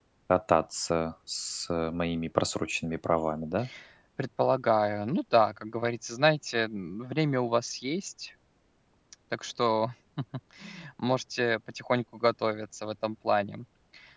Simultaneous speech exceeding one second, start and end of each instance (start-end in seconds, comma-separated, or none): none